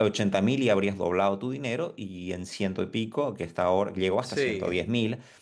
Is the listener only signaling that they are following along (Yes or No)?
Yes